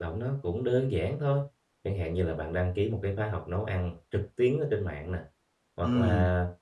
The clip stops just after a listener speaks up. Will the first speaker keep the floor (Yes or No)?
Yes